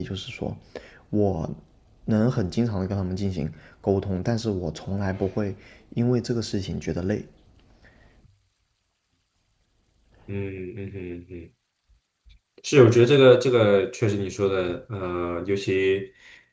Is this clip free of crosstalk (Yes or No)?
Yes